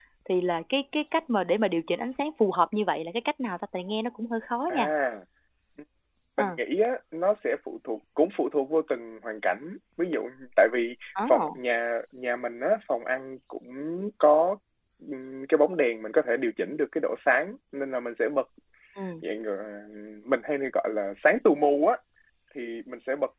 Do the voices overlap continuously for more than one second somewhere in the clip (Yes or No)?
No